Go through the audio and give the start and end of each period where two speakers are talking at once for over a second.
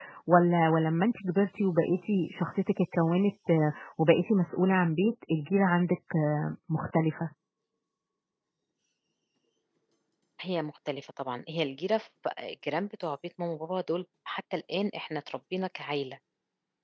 none

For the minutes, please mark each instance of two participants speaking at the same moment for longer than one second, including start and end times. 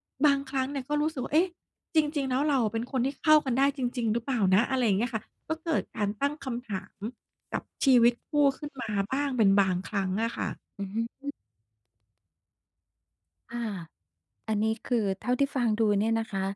none

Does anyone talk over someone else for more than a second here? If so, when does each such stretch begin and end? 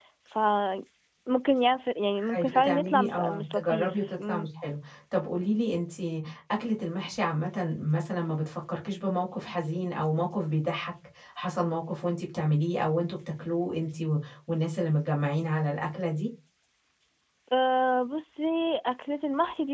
2.3-4.5

